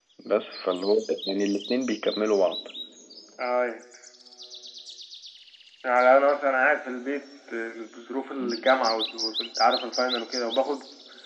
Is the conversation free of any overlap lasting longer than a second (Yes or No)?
Yes